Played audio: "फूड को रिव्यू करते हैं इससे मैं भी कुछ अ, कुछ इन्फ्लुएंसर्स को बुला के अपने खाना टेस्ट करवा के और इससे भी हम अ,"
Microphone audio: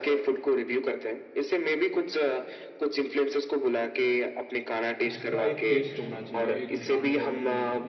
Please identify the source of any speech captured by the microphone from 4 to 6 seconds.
both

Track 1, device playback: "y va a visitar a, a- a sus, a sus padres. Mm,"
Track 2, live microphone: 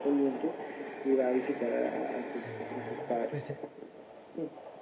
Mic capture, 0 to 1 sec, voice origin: echo only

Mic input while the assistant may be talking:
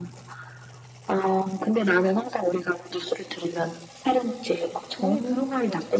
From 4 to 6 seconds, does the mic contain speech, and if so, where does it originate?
both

